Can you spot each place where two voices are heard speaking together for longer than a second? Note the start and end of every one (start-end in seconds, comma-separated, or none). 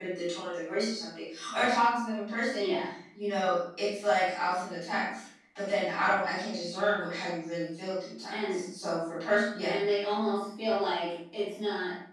none